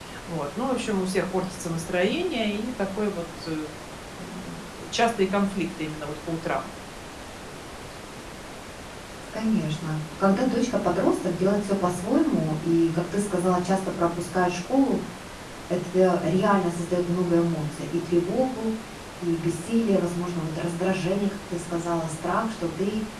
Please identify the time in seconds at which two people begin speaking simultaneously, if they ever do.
none

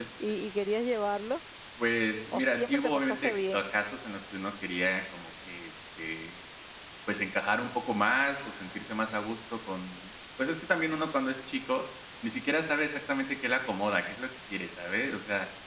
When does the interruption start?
2 s

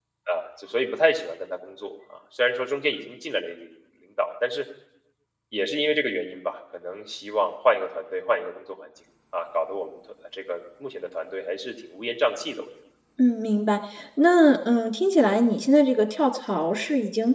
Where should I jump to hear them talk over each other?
none

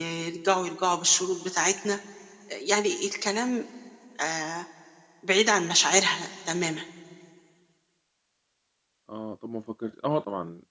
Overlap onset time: none

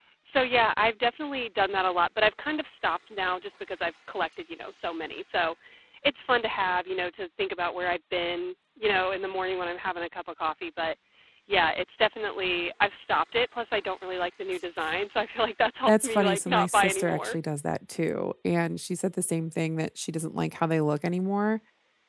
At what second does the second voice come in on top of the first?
16 s

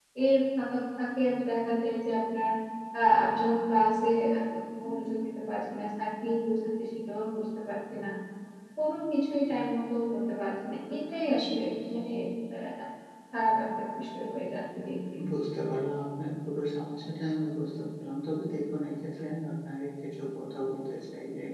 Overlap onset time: none

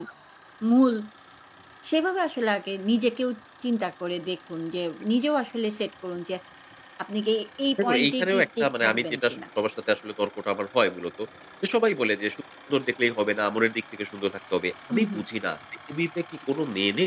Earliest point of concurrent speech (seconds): 8 s

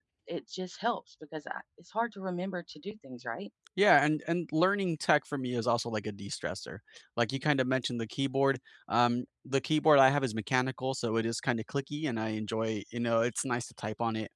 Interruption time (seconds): none

